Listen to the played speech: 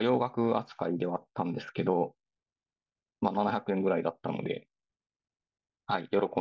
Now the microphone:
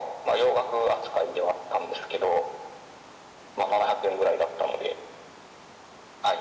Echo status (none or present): present